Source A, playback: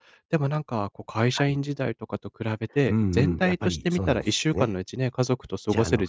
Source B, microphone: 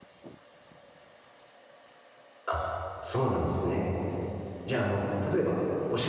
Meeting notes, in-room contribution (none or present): present